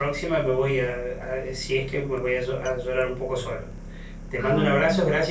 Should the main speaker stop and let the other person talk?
No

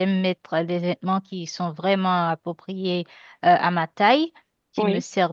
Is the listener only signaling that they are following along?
Yes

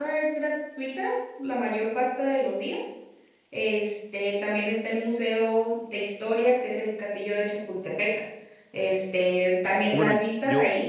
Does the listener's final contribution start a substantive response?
Yes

